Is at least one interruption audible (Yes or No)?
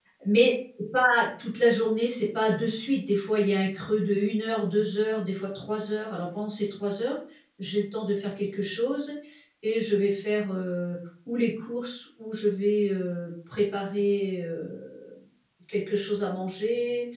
No